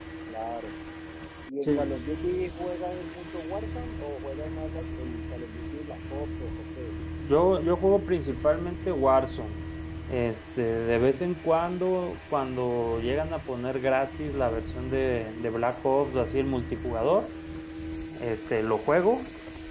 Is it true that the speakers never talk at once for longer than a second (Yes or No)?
Yes